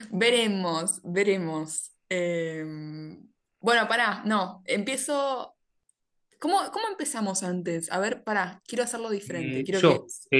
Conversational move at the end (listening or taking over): taking over